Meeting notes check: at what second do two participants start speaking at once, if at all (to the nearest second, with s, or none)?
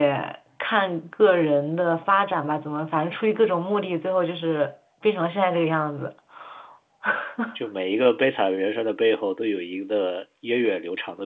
none